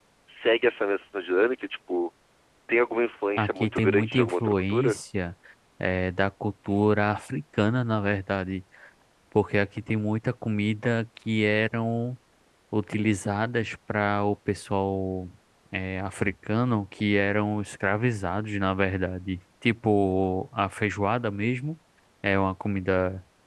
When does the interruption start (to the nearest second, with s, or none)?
3 s